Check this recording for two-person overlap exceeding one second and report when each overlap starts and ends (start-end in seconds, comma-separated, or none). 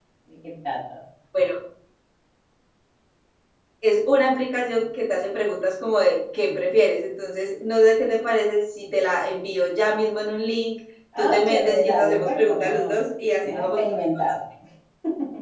11.2-13.0